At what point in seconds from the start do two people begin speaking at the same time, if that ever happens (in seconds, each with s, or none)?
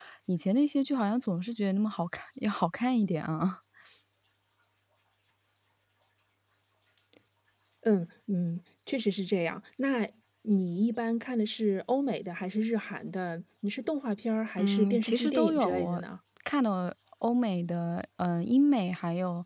14.6 s